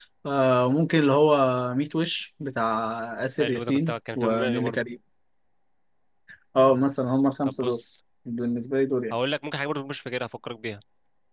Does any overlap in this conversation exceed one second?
Yes, from 3.4 s

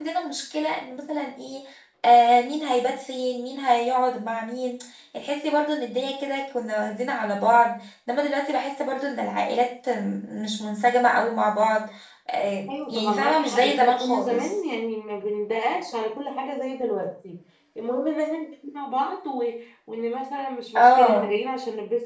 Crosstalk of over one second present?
Yes, from 12.7 s

